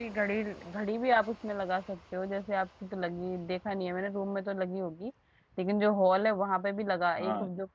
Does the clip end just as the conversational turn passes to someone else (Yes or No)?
No